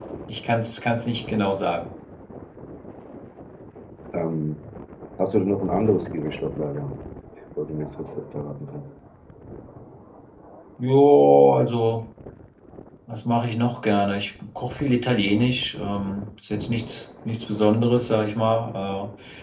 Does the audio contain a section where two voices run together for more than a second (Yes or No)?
No